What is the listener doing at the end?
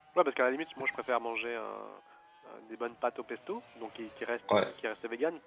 listening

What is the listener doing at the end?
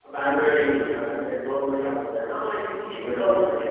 listening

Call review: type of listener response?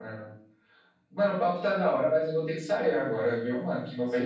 taking over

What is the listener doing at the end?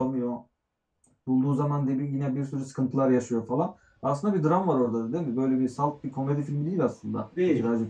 taking over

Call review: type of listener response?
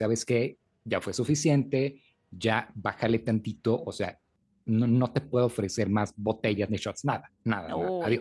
taking over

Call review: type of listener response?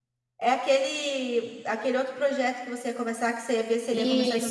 taking over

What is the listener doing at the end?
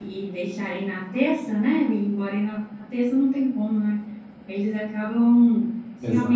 listening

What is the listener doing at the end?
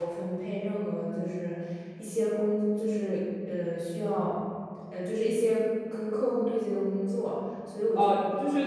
taking over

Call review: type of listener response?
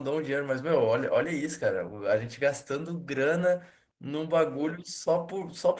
listening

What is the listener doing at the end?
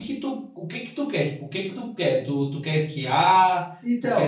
taking over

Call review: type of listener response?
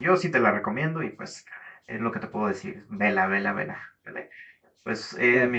listening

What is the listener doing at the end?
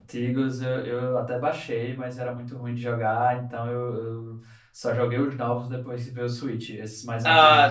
taking over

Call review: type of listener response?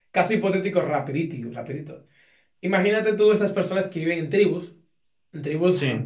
listening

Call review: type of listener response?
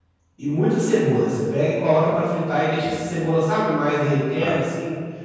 listening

